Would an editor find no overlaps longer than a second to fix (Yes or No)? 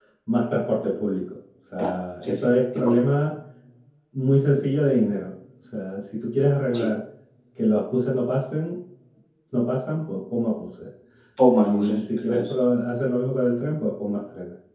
No